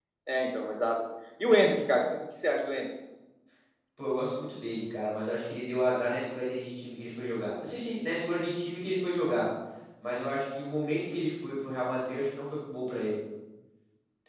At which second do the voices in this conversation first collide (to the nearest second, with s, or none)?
none